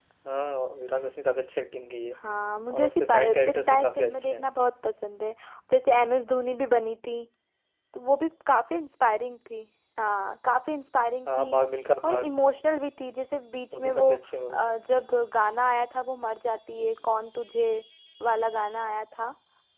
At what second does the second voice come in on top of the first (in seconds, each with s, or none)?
2.7 s